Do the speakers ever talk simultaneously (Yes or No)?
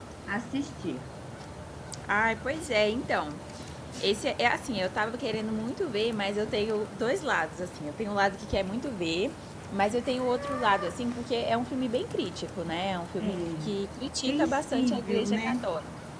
Yes